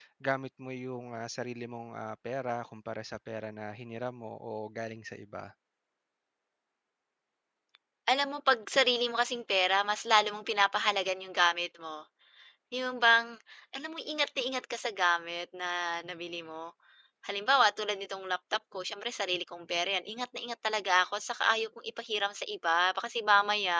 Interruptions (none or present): none